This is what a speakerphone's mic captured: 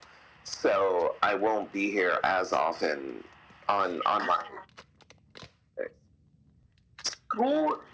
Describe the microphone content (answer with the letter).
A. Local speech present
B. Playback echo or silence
B